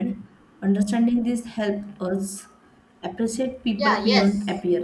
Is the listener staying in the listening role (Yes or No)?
No